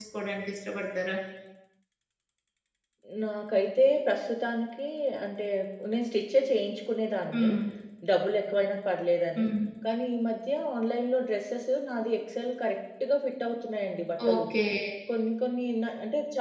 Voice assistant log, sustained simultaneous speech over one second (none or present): none